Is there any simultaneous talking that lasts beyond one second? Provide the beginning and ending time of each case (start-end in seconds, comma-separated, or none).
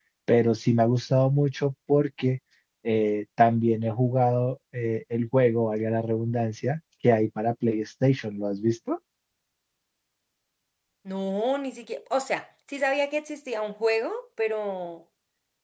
none